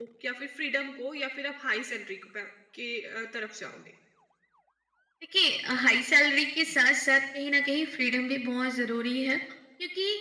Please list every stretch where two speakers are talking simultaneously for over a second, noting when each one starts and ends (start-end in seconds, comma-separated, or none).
none